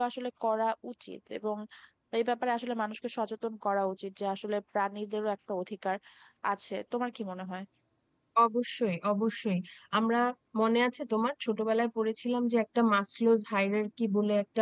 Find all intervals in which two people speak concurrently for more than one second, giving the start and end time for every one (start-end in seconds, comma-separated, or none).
none